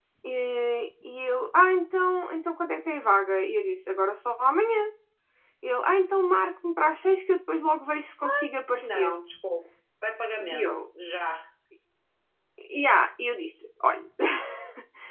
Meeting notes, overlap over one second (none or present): none